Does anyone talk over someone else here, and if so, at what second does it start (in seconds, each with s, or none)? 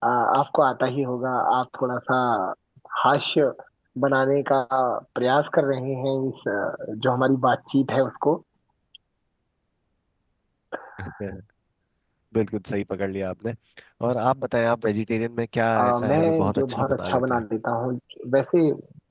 15.7 s